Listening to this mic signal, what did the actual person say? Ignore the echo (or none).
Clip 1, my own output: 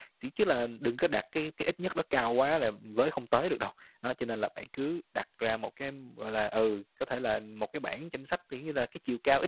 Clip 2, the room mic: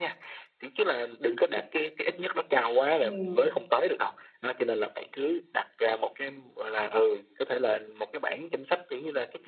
Ừm,